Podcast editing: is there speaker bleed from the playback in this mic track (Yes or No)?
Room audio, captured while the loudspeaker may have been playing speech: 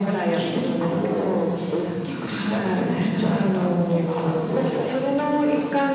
Yes